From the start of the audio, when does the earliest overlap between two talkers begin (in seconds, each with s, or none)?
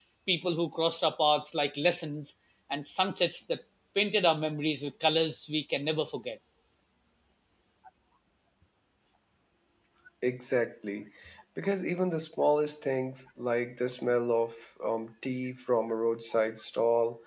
none